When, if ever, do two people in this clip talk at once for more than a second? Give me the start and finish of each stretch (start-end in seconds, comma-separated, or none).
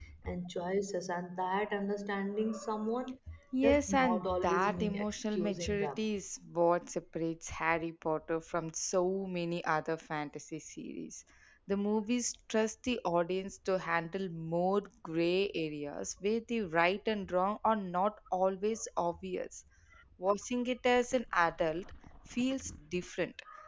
3.6-6.0